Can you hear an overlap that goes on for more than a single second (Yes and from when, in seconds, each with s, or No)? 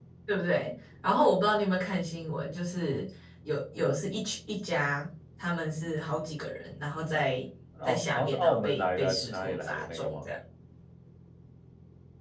Yes, from 7.8 s